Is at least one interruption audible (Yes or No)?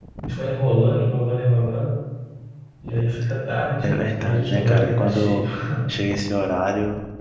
Yes